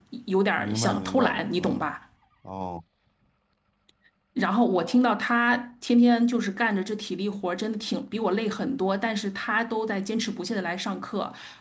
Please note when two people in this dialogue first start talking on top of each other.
1 s

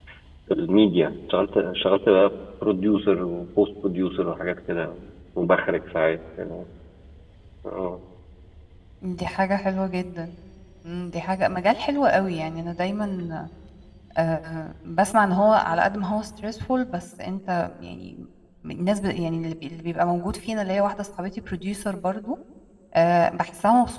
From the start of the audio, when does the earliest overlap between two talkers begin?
none

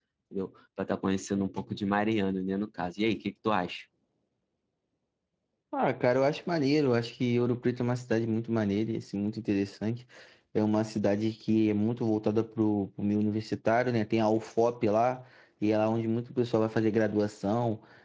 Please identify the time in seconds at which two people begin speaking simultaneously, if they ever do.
none

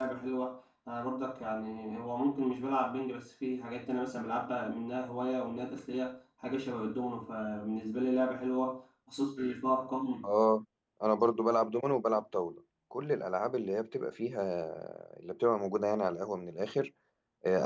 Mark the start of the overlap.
none

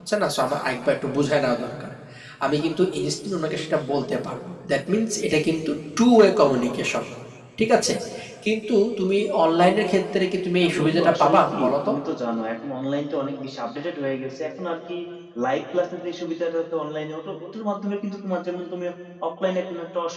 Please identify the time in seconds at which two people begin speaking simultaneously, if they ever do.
11 s

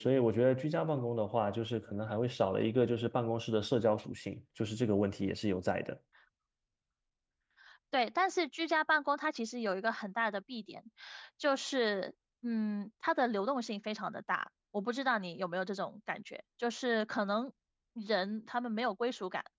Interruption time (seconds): none

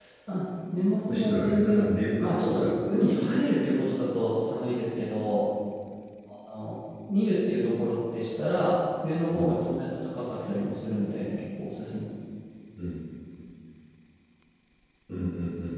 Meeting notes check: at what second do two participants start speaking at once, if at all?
1 s

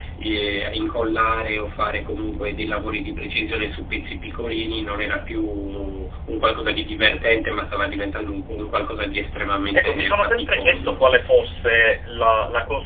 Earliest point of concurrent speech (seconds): 10 s

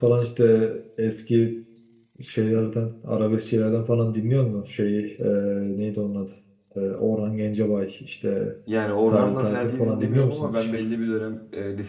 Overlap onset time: 9 s

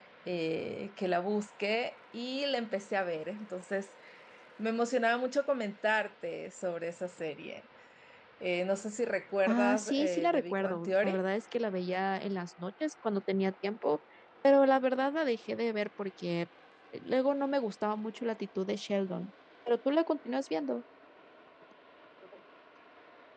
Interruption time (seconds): 9 s

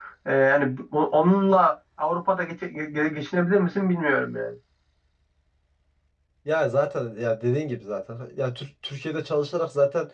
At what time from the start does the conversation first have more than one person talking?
none

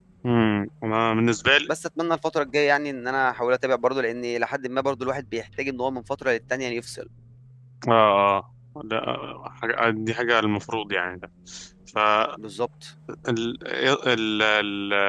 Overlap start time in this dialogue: none

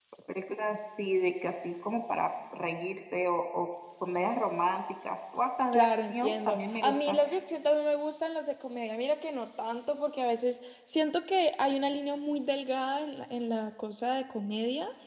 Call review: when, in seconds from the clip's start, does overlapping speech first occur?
6 s

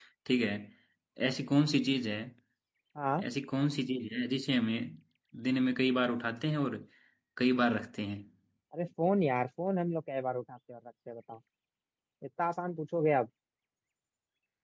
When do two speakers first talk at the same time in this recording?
none

